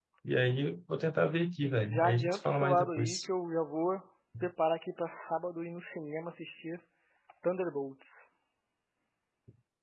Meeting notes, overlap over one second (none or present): present